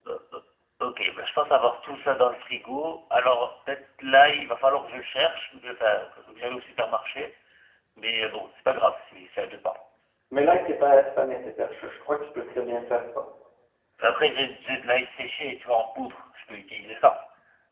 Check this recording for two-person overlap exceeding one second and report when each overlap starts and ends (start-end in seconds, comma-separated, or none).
none